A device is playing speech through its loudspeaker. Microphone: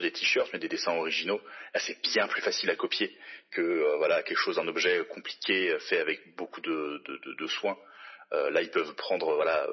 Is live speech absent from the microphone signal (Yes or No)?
Yes